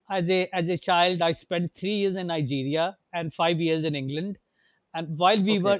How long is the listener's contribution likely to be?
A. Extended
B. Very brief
B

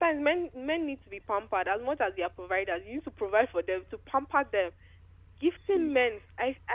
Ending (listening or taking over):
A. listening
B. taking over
A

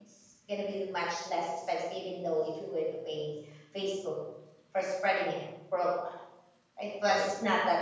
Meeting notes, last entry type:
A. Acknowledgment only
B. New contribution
A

